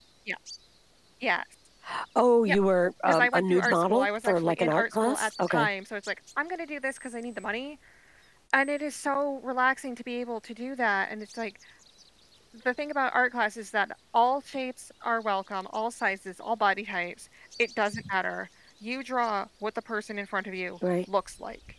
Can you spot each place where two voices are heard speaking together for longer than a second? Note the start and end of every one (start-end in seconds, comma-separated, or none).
3.1-5.7